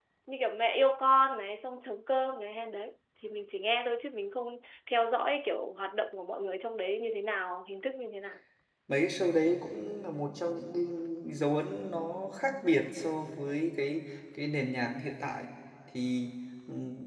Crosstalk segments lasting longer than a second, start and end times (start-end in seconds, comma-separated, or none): none